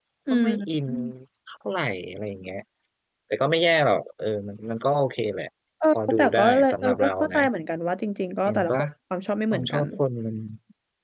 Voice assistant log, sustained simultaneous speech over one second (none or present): present